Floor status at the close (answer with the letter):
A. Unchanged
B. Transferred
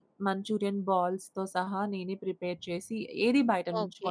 B